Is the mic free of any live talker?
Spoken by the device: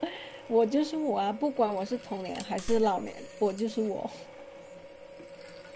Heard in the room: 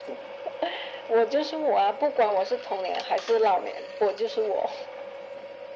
Yes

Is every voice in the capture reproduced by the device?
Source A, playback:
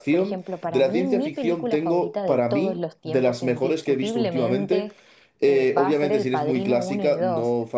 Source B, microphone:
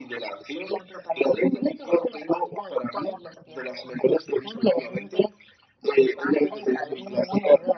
Yes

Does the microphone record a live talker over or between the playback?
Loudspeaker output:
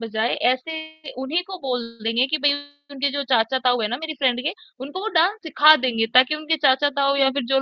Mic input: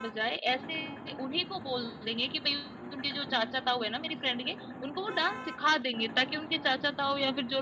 No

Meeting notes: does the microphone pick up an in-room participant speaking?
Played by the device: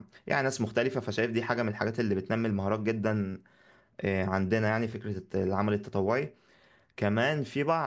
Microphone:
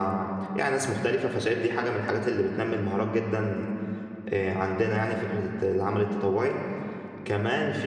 No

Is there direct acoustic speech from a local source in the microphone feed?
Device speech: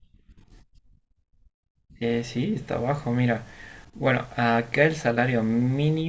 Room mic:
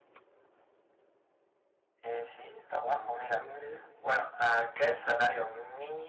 Yes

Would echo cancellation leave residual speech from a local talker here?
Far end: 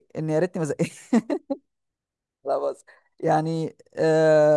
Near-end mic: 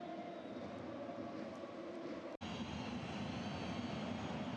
No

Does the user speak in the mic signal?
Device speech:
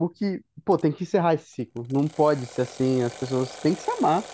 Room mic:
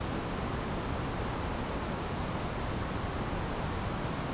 No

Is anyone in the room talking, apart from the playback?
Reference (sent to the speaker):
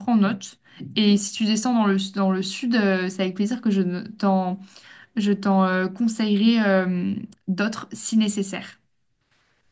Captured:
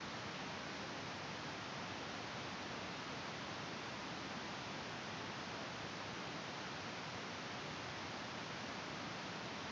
No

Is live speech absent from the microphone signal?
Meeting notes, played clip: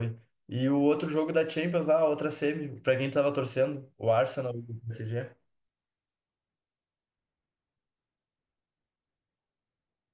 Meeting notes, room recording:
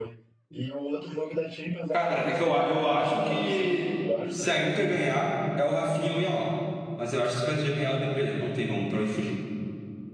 No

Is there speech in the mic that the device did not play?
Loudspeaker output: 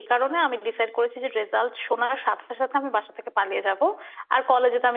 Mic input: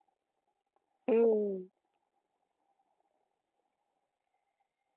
Yes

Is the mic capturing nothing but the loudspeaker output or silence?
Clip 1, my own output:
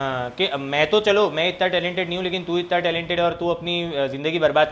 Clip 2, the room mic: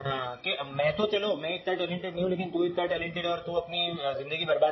Yes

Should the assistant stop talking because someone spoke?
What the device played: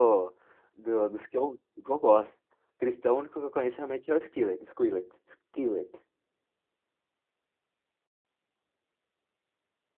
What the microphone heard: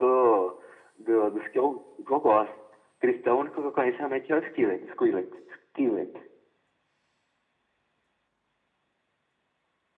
No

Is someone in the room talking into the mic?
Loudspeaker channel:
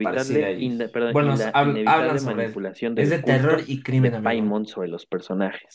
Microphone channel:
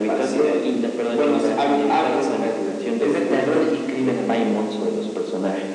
No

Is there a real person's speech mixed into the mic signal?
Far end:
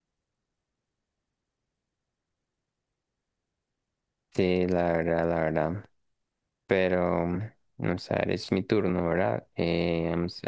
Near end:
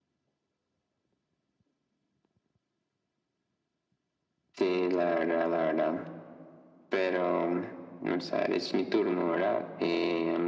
No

